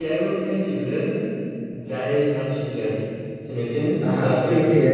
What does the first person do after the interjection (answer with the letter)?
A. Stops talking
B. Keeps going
A